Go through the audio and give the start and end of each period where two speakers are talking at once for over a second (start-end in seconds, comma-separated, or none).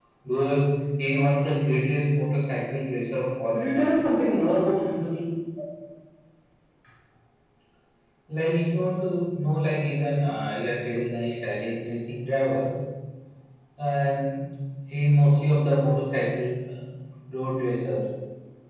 none